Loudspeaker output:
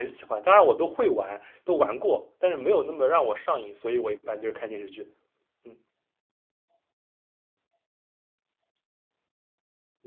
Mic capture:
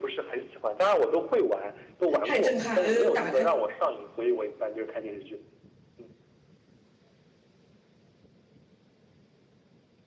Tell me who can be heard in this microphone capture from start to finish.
both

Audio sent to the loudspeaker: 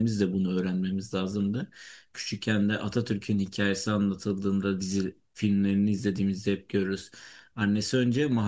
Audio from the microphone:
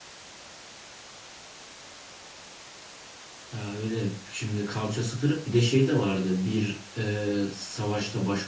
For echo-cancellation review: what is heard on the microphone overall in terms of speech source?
user only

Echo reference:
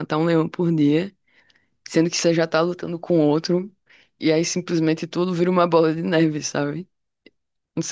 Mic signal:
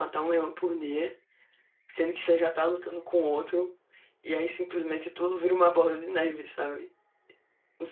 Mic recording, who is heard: echo only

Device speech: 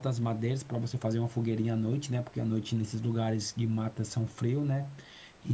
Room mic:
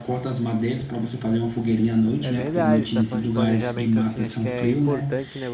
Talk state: both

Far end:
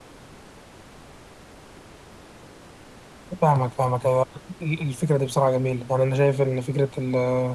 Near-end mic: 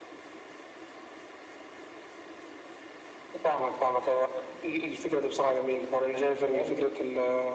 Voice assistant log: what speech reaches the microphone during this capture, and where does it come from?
both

